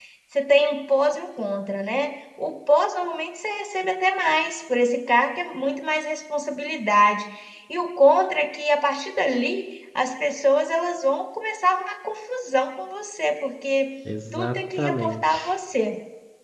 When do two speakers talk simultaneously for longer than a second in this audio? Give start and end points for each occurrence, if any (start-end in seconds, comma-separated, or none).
14.3-15.6